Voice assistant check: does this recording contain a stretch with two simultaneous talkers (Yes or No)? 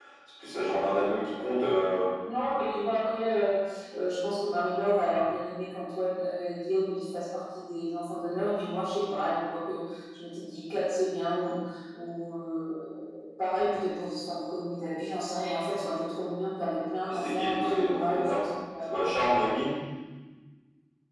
Yes